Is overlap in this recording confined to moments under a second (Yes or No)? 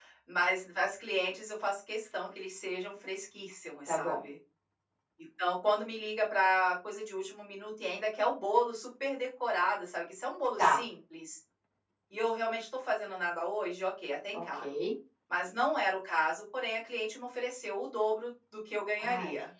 Yes